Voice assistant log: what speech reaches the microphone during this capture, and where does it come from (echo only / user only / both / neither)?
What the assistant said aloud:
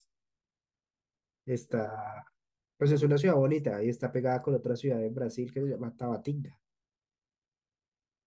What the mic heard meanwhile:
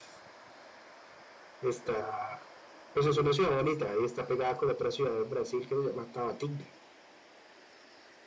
echo only